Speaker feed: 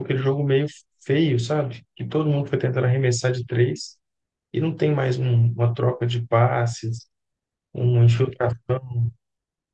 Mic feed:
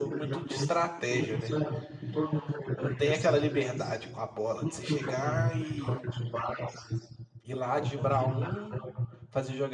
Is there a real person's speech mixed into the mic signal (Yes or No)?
Yes